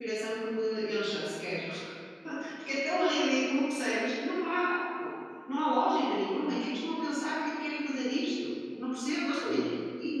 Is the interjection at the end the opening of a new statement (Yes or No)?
No